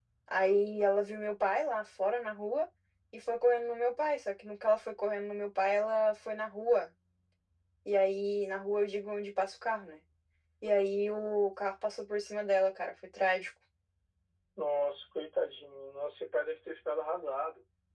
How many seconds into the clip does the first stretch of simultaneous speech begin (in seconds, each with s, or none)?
none